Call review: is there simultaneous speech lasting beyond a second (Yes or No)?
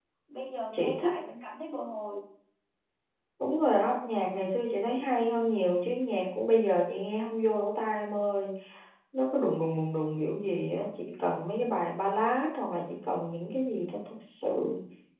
No